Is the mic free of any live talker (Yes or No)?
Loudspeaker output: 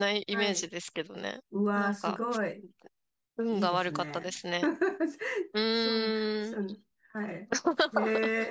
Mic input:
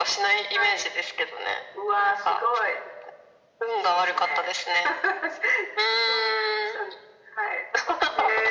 Yes